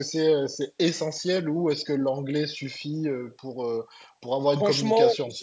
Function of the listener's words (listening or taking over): taking over